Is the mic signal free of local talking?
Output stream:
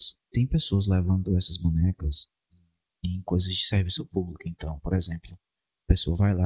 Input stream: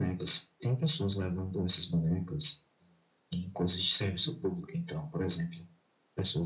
Yes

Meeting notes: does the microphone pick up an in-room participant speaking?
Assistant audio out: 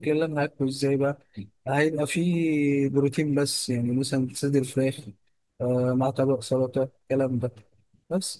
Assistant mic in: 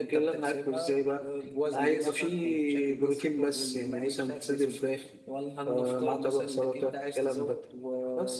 Yes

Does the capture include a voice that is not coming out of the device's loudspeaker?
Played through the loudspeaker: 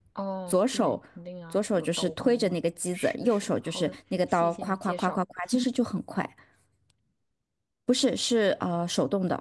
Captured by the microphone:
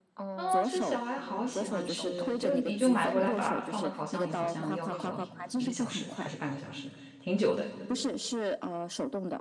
Yes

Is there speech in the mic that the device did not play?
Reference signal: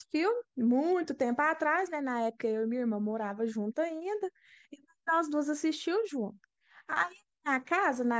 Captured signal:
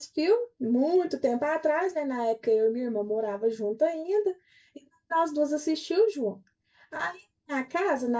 No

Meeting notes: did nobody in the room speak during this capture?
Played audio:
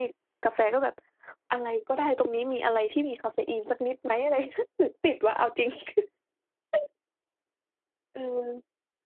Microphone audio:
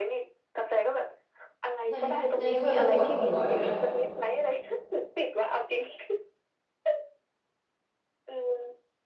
No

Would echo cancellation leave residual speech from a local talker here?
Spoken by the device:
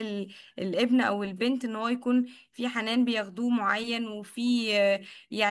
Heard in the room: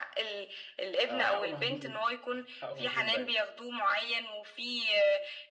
Yes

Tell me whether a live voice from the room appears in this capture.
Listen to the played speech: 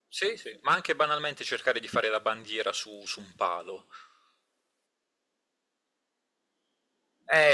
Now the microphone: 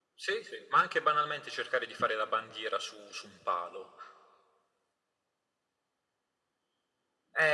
No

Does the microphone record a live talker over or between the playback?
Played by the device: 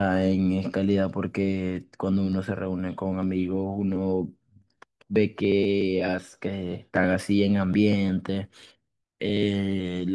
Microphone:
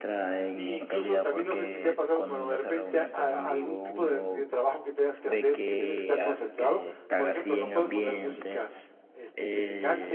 Yes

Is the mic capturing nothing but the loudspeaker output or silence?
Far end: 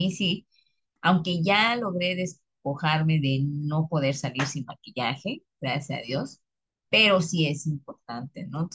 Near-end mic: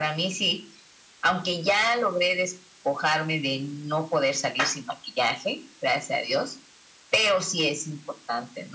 Yes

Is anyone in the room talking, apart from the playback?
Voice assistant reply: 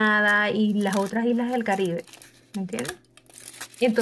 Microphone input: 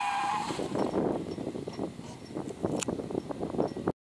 No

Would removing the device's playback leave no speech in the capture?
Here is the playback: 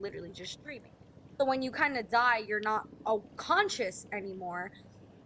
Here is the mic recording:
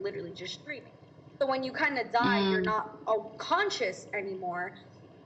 No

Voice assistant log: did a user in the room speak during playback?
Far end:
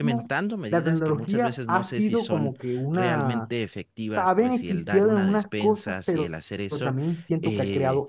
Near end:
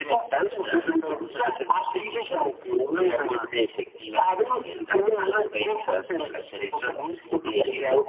Yes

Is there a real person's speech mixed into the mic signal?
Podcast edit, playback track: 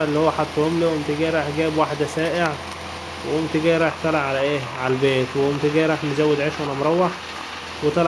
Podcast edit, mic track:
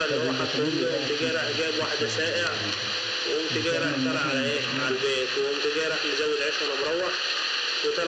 Yes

